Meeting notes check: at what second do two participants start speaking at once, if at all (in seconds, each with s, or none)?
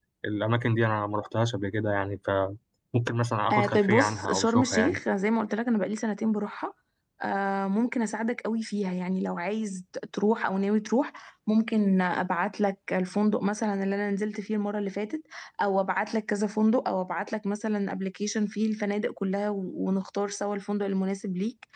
3.5 s